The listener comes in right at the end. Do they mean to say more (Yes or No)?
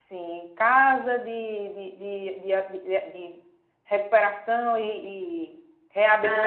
No